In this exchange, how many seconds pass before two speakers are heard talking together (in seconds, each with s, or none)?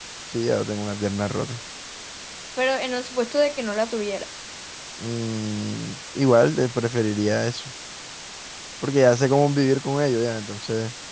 none